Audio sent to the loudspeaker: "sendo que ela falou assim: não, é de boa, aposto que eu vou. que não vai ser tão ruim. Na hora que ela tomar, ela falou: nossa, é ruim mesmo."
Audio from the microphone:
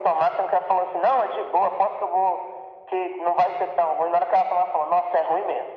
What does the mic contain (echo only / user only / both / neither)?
echo only